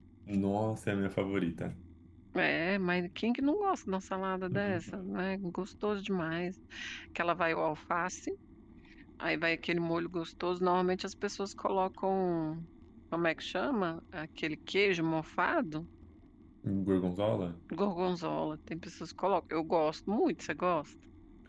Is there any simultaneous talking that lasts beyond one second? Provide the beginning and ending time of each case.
none

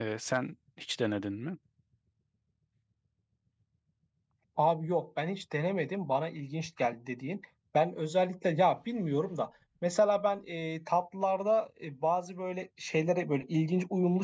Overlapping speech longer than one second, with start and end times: none

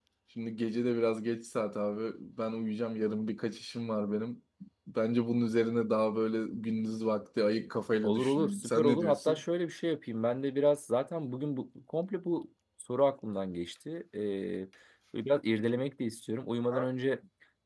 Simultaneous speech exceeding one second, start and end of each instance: 8.0-9.4

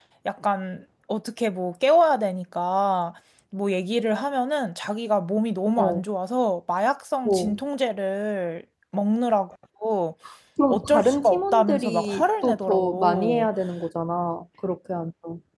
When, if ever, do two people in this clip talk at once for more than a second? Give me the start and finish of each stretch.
10.7-13.5

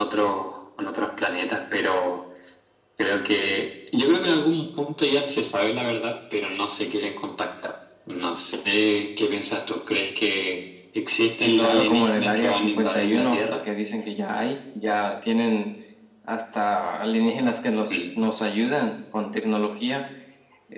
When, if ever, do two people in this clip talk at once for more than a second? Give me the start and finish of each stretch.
11.3-13.4

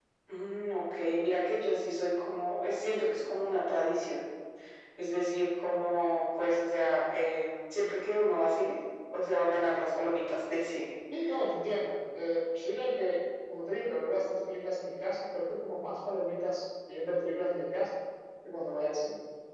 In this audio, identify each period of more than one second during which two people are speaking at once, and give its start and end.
none

